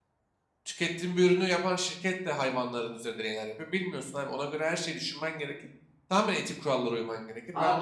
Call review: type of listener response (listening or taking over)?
taking over